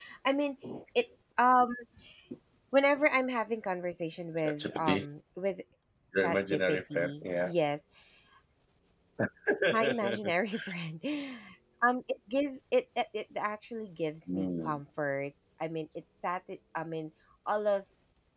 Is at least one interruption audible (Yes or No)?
Yes